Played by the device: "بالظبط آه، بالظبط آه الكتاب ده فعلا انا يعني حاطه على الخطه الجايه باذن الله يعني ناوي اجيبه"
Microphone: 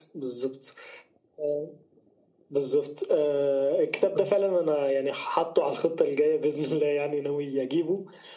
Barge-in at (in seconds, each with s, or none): 4.0 s